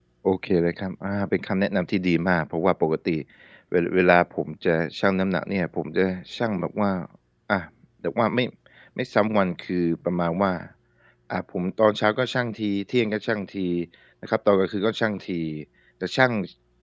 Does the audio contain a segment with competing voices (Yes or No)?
No